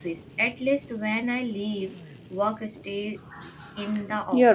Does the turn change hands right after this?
Yes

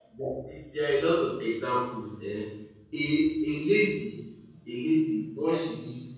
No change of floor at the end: Yes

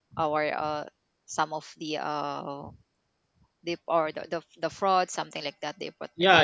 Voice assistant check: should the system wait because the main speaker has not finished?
No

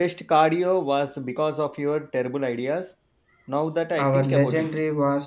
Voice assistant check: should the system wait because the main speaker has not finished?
No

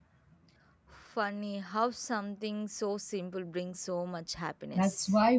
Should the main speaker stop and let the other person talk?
Yes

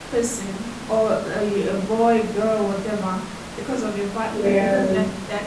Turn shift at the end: No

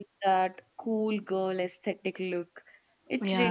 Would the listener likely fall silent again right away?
Yes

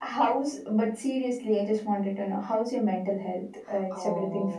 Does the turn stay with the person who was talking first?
No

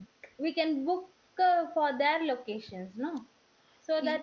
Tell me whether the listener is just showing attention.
Yes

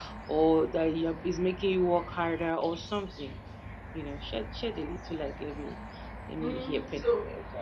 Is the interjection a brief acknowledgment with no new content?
No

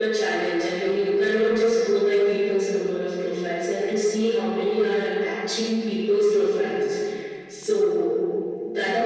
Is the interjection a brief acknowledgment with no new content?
No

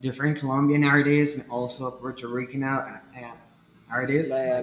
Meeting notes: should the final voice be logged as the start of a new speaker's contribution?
Yes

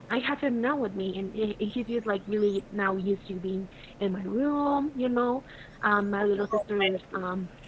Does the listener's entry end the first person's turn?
No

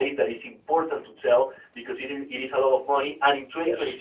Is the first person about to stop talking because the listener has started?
No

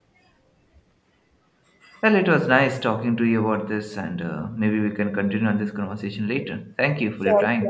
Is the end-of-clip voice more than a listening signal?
Yes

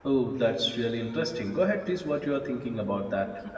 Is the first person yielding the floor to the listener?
Yes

